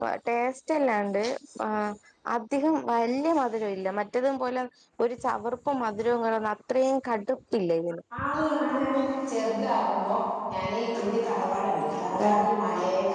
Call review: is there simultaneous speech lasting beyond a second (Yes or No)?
No